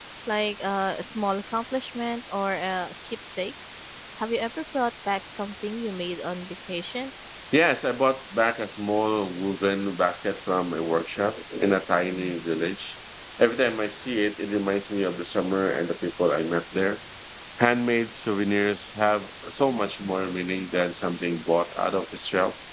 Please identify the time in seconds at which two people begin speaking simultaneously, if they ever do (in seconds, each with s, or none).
none